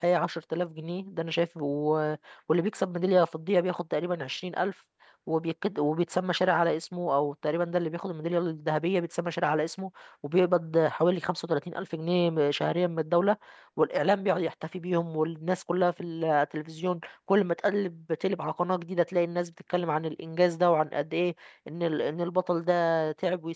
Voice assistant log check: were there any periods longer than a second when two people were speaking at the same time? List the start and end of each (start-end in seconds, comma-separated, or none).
none